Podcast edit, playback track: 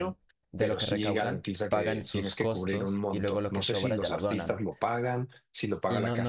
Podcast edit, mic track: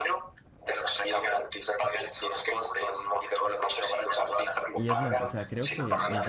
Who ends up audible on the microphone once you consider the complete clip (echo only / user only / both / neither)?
both